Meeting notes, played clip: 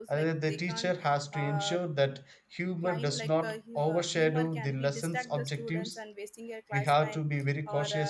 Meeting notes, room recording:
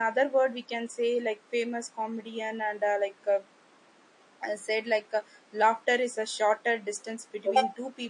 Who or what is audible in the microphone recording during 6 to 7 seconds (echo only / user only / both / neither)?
user only